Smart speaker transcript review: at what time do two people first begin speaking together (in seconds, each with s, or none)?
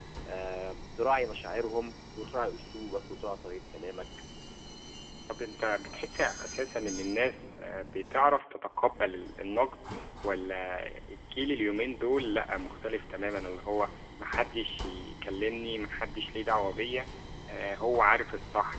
none